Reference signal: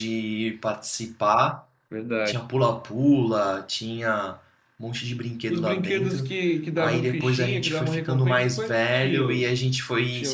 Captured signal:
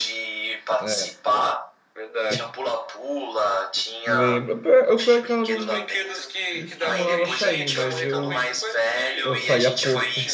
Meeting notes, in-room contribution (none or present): present